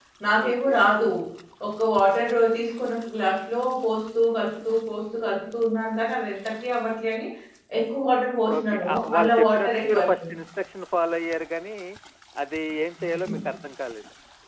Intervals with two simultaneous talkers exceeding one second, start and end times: 8.6-10.3

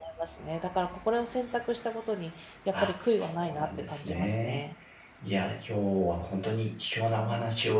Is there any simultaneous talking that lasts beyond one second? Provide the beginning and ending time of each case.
2.8-4.6

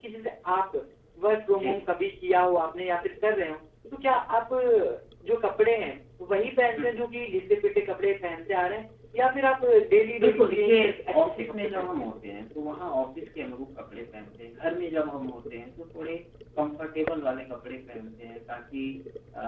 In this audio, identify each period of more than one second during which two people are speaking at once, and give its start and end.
10.2-11.9

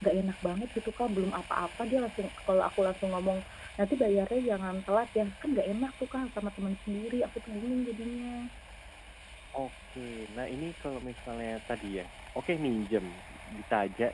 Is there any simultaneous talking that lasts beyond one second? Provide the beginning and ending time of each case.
none

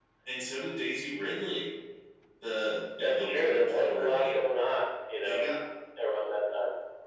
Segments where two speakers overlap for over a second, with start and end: 3.0-4.3

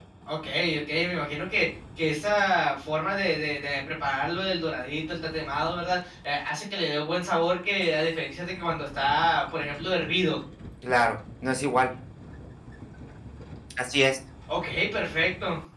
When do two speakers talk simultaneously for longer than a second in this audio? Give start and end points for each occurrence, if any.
none

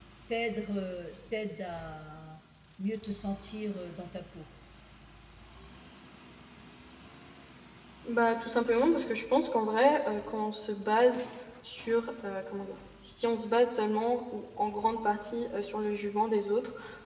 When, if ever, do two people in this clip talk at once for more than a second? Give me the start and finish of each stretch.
none

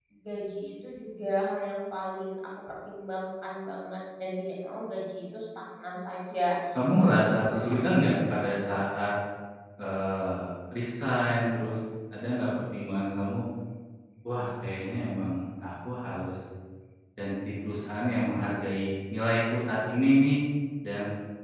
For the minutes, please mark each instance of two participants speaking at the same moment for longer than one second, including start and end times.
7.1-8.7

